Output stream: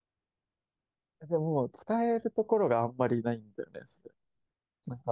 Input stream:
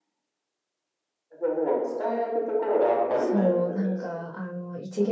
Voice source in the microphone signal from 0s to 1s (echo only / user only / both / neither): neither